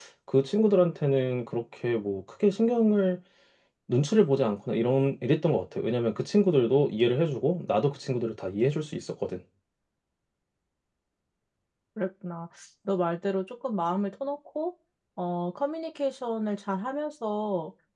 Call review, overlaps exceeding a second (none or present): none